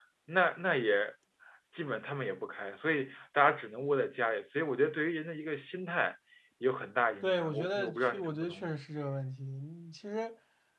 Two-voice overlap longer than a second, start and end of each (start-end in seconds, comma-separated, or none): 7.2-8.8